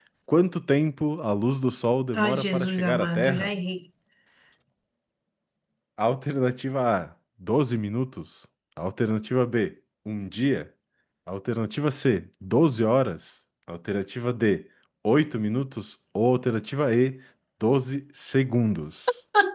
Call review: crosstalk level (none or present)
present